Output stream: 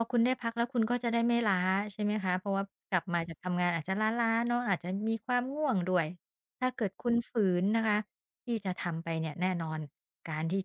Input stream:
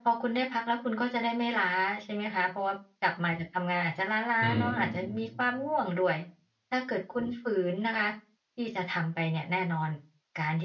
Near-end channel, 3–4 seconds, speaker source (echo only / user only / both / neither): echo only